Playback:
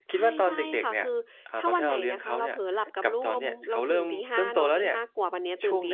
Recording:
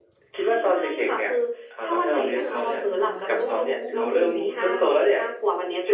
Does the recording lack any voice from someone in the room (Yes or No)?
No